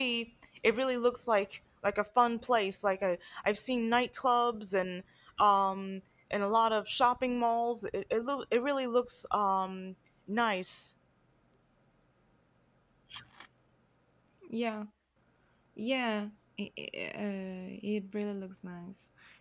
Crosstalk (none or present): none